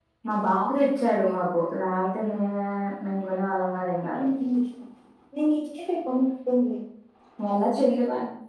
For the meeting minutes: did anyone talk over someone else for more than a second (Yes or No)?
No